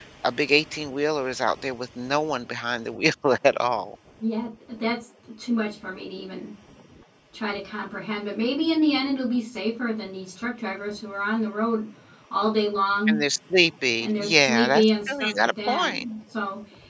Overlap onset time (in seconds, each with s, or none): 14.0 s